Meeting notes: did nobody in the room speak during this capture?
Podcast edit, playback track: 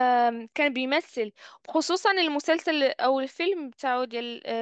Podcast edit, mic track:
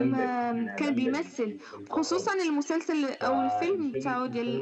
No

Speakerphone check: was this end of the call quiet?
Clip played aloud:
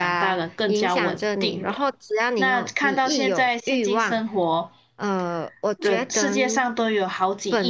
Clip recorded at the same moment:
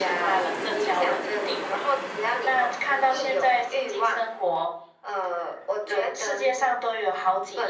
Yes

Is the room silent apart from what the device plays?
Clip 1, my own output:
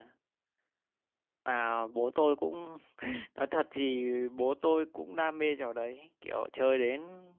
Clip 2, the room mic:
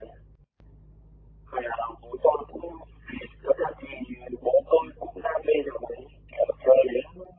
Yes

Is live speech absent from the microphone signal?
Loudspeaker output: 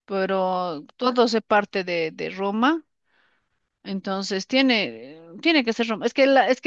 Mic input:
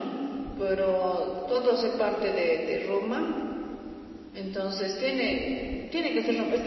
Yes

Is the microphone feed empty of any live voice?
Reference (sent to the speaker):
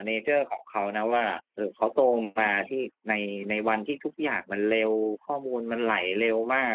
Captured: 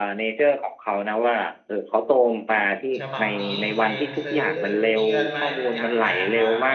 No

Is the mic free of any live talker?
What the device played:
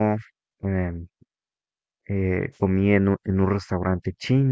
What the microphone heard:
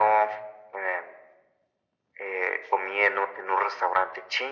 Yes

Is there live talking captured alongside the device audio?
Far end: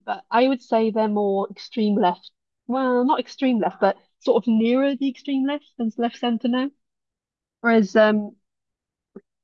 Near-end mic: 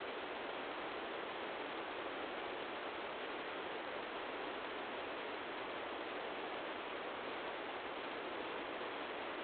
No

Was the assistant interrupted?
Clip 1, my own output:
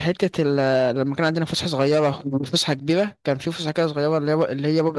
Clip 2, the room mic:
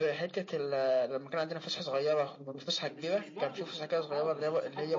Yes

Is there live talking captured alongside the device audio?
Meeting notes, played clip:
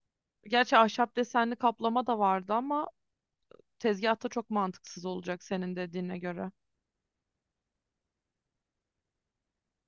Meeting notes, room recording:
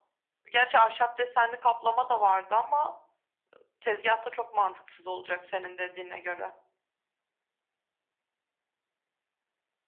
No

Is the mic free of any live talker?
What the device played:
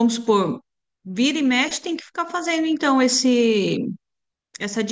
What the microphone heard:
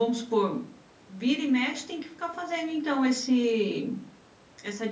Yes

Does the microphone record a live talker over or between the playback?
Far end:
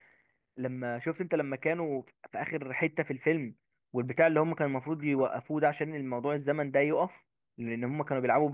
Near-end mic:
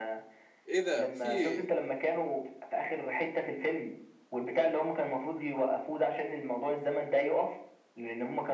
Yes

